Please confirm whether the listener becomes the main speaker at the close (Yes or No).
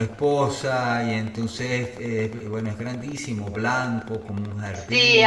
Yes